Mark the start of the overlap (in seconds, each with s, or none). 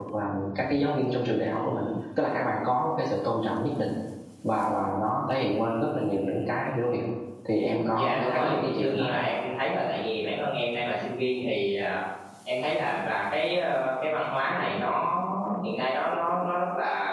7.9 s